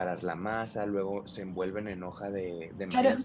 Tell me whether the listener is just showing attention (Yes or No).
No